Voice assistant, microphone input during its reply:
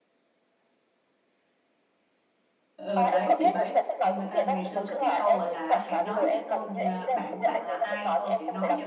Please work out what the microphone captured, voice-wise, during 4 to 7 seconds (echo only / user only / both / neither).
both